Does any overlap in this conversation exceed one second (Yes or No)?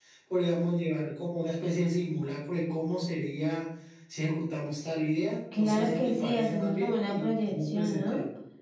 Yes